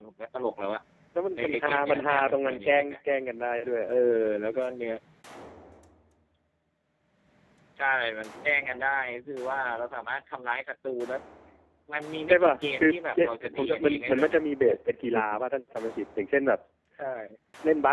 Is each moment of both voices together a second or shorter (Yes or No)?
No